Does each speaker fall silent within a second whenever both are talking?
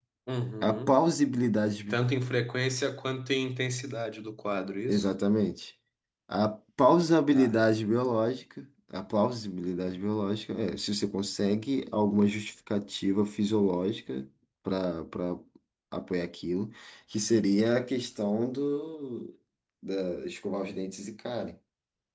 Yes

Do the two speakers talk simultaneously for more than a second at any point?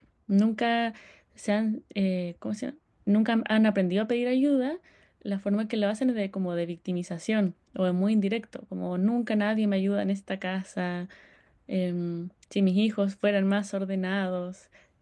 No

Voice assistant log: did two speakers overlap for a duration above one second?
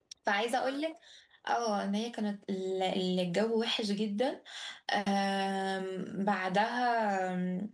No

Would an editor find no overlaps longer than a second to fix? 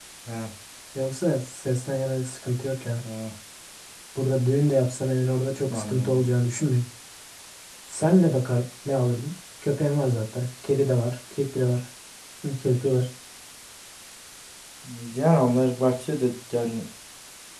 Yes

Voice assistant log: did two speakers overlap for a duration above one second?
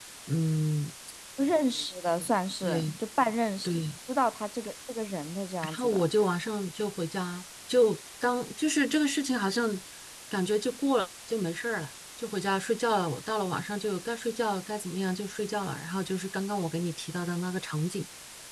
No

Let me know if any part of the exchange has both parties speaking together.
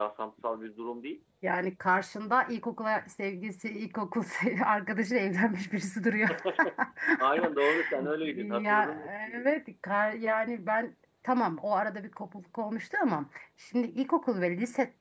Yes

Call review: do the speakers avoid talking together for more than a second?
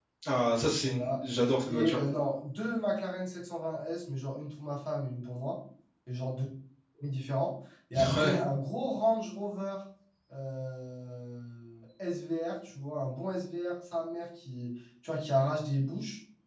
Yes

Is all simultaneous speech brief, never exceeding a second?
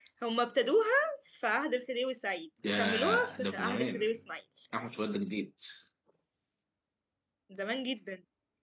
No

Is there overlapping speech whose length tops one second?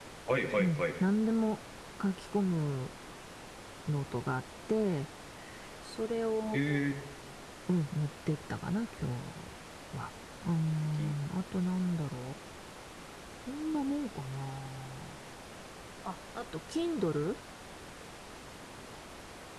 No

